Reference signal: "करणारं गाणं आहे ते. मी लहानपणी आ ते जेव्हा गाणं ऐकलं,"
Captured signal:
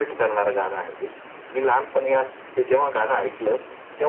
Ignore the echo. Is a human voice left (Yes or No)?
No